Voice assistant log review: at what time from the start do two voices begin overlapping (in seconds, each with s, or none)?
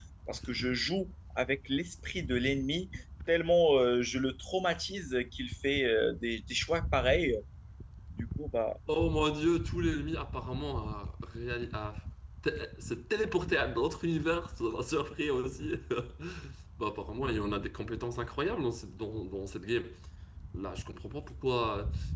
none